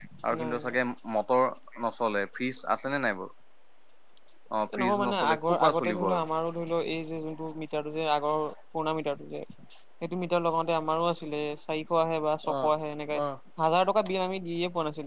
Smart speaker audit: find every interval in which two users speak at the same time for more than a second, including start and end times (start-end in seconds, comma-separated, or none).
4.7-6.2